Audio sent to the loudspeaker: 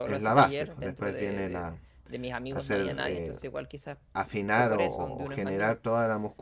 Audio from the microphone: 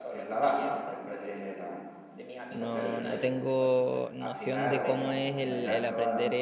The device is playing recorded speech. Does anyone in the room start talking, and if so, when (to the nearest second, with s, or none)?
3 s